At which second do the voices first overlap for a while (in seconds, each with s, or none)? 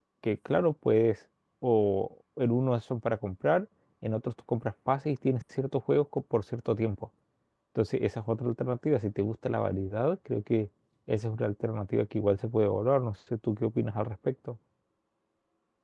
none